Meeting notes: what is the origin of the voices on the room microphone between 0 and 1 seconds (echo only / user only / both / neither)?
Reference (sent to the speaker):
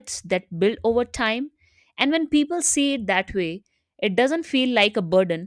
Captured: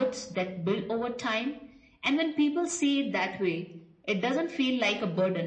echo only